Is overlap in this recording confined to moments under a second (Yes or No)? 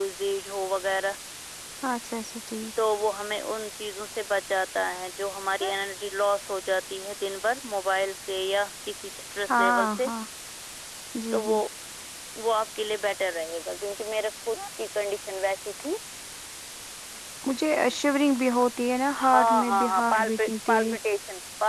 No